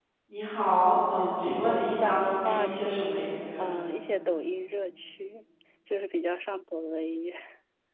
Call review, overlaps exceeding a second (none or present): present